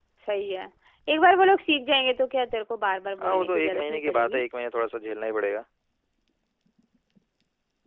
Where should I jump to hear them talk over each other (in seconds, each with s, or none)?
3.2 s